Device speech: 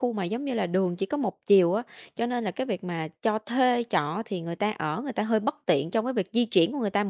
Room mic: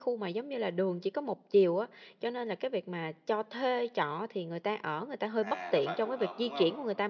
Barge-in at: 5 s

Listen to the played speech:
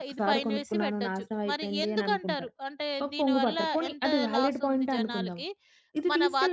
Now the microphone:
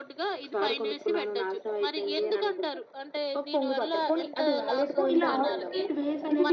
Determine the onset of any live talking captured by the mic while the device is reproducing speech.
5 s

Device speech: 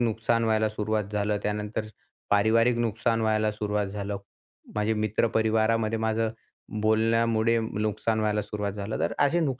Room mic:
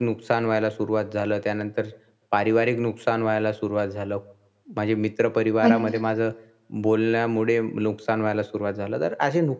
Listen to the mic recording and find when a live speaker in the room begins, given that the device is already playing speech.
6 s

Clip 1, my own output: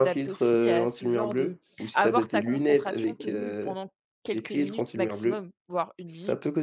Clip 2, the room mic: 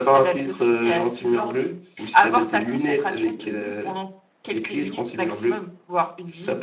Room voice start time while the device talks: none

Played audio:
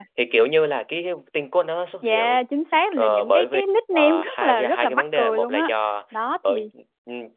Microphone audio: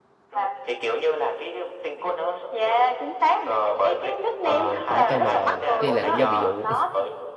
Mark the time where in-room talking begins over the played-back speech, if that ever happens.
4 s

